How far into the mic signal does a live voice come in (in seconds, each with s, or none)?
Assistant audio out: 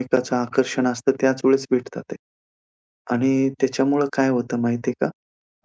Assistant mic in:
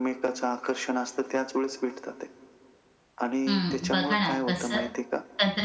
3.5 s